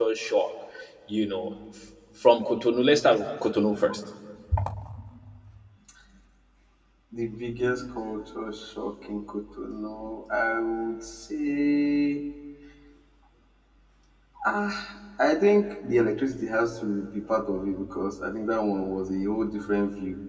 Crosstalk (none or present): none